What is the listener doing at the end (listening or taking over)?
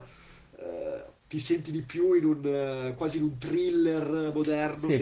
taking over